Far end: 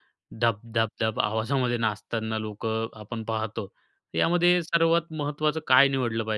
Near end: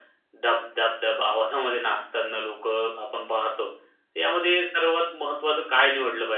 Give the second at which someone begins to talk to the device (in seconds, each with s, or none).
none